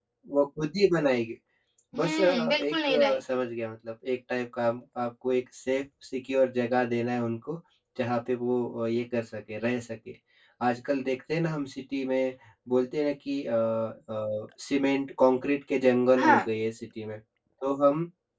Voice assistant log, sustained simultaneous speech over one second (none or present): present